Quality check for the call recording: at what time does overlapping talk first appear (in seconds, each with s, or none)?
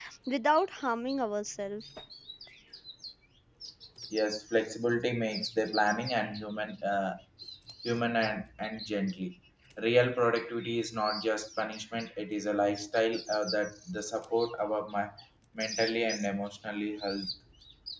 none